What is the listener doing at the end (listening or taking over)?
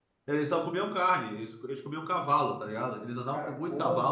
taking over